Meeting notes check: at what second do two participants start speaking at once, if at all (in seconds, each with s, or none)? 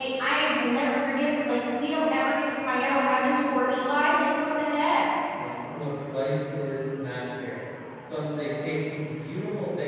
none